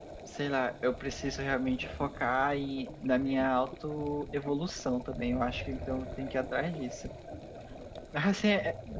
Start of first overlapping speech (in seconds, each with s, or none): none